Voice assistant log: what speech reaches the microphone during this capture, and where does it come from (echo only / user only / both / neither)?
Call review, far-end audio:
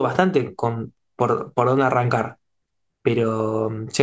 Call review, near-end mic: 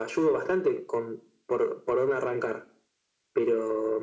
echo only